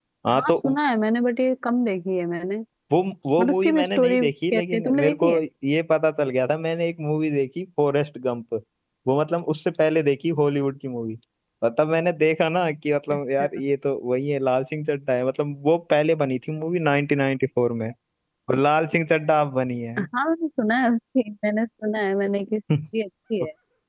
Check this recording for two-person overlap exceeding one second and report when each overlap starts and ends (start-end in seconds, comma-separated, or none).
3.4-5.3